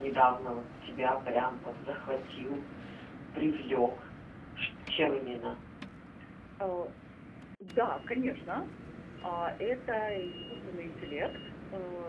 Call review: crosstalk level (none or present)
none